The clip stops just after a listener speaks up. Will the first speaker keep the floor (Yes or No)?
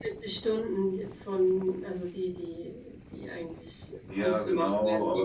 No